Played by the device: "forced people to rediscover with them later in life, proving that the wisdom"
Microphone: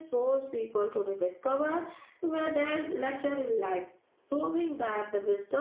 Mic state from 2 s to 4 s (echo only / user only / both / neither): echo only